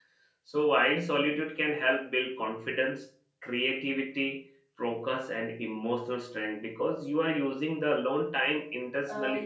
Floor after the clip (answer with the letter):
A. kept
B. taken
B